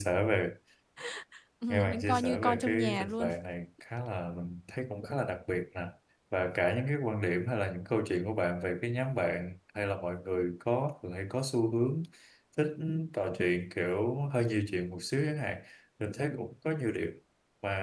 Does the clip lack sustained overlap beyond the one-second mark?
No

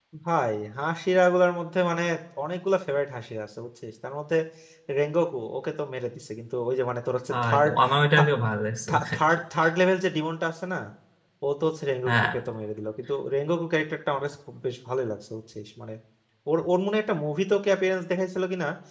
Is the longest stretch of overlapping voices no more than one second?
Yes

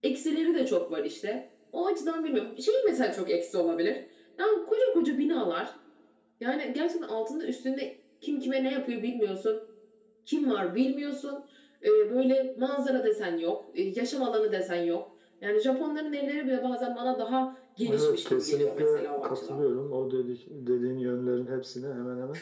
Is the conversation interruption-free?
No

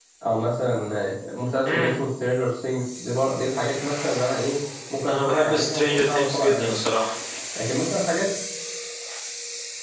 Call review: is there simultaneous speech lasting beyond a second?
Yes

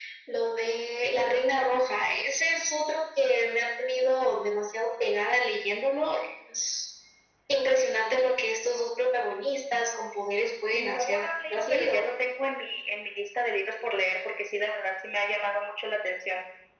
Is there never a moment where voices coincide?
No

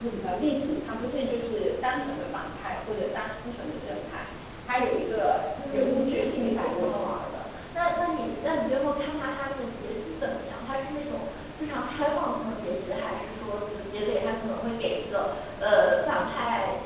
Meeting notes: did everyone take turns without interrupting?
No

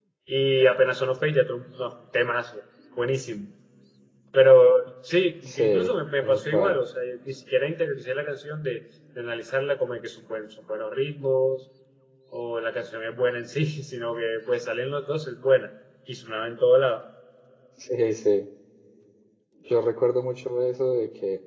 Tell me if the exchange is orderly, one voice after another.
No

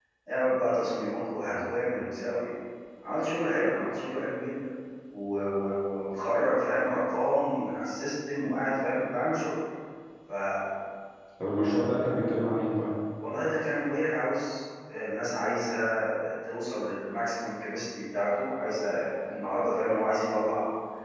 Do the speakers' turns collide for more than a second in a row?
No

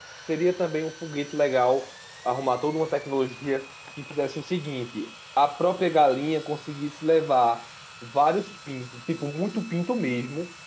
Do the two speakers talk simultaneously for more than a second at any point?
No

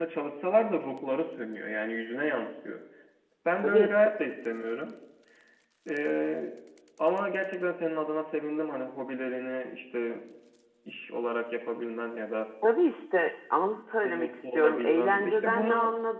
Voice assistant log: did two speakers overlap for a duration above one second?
Yes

